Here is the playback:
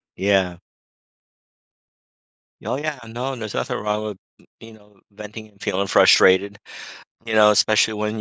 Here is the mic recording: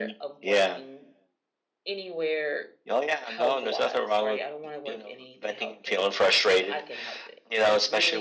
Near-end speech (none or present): present